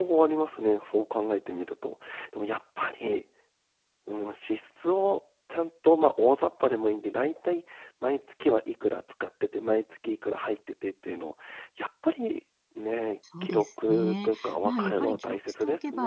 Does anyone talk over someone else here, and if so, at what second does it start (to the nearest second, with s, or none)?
13 s